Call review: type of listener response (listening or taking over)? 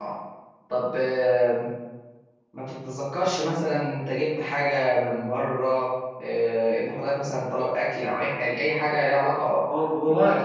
taking over